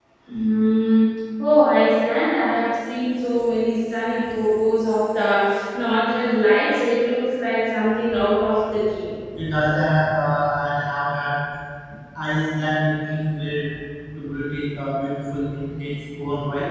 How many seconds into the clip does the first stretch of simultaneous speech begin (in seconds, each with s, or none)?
none